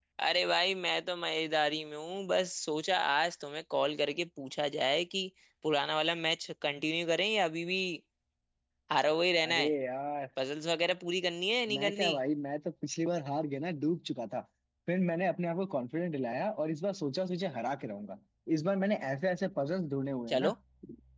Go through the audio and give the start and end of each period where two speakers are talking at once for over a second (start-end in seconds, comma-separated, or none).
none